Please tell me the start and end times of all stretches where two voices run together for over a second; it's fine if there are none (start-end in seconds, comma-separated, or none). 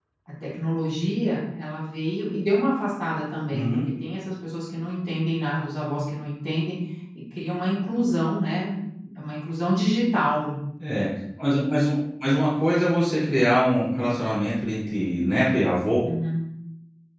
none